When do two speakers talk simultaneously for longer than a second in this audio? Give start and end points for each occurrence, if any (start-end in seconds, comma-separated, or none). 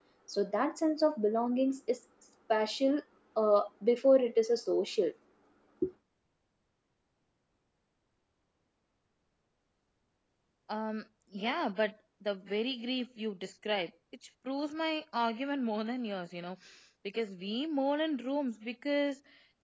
none